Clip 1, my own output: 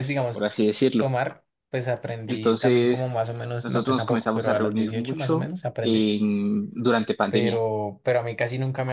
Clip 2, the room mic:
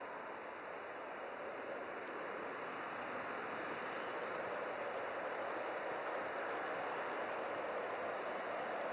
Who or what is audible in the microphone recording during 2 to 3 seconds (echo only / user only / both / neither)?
neither